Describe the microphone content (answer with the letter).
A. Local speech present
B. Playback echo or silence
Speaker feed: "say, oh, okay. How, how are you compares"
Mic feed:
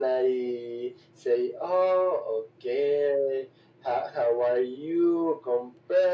B